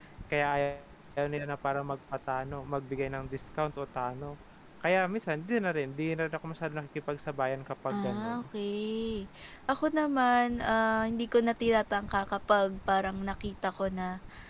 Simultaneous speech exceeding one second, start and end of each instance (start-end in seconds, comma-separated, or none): none